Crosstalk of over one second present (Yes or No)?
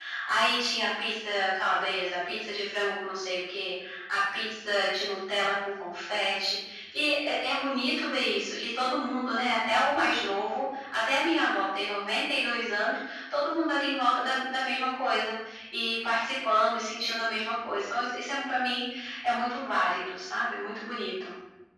No